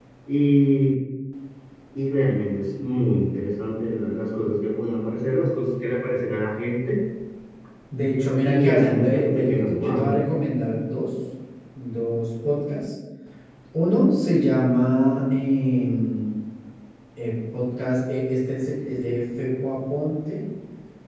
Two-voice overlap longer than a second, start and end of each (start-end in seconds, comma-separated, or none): 8.4-10.1